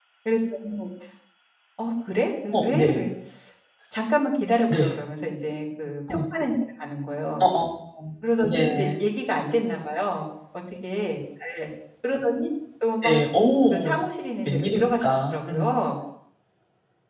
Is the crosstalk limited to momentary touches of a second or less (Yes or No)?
No